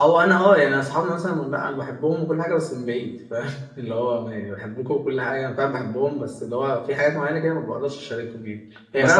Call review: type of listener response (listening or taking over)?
taking over